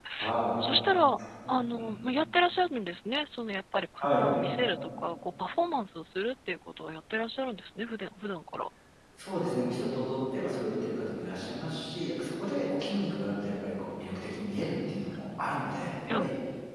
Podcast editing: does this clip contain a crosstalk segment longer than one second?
No

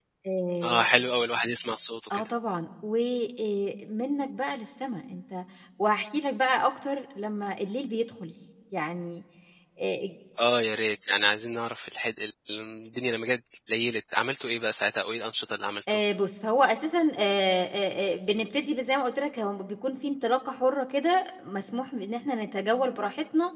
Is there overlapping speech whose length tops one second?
No

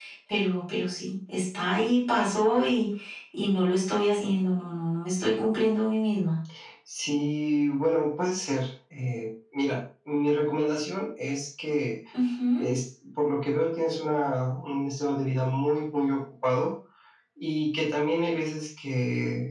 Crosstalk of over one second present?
No

